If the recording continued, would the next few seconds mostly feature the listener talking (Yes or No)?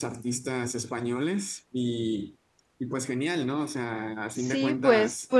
Yes